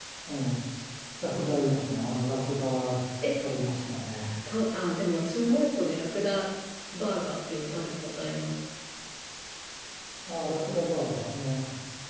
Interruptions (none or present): none